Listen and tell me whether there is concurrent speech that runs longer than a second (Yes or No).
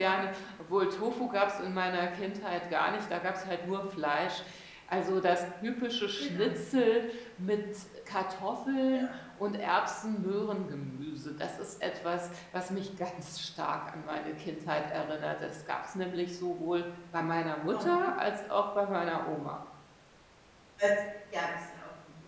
No